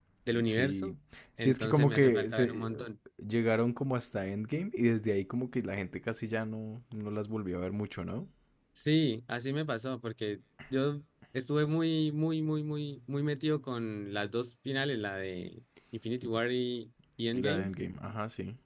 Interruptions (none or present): present